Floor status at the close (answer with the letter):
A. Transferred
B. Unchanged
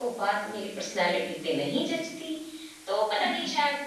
B